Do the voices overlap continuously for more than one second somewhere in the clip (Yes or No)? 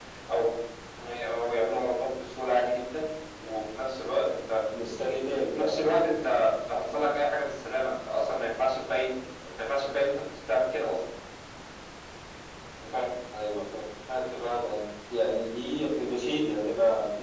No